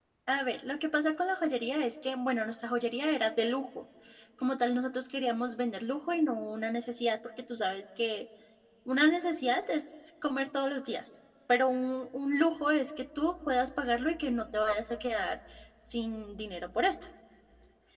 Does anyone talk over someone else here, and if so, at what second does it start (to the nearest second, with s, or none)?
none